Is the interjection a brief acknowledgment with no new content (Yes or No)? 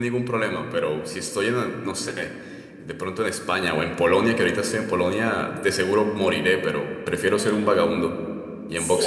No